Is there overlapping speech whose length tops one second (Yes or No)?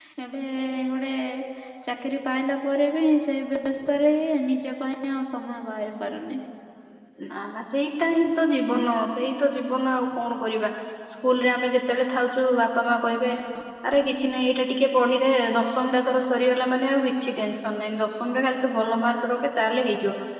No